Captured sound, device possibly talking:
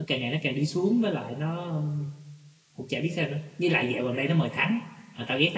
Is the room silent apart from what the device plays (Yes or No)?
No